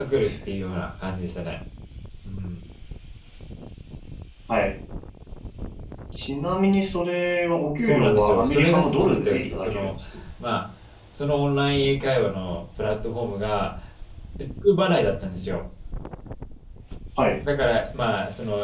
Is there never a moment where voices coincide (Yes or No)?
No